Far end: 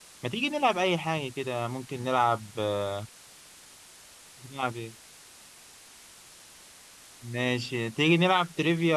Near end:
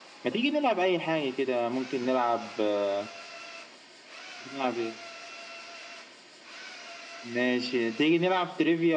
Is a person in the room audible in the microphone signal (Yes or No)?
No